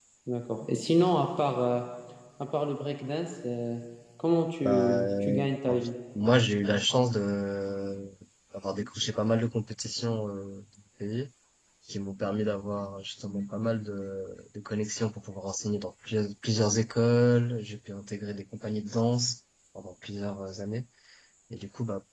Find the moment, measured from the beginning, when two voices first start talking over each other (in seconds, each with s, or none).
4.7 s